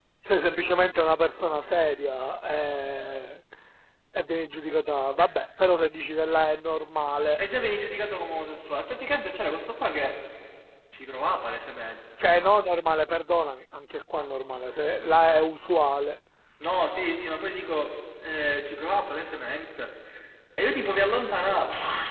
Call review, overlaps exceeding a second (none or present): none